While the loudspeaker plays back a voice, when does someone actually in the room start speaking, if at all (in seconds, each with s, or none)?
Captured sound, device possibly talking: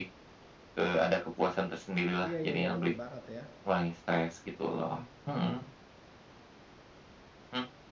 2.2 s